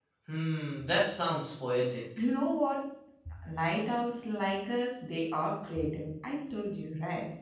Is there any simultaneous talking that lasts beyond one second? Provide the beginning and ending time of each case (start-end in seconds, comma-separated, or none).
none